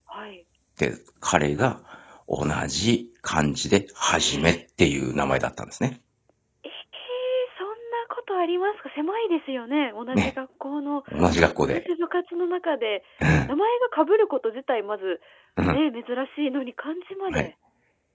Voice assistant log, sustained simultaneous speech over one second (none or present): none